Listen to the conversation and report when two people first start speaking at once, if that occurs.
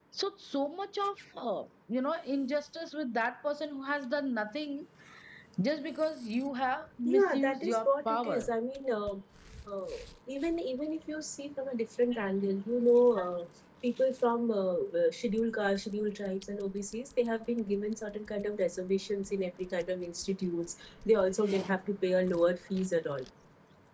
7.0 s

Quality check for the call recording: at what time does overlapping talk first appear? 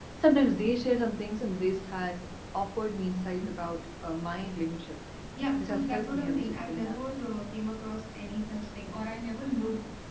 5.6 s

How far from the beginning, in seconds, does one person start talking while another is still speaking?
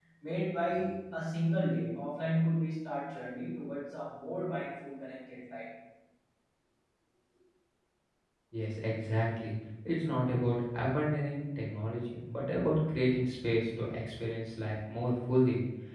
none

